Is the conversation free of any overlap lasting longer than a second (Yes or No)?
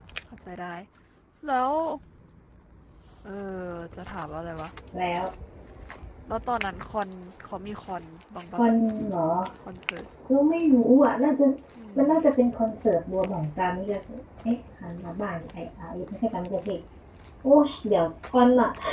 Yes